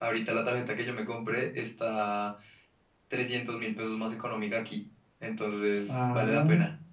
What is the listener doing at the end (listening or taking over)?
taking over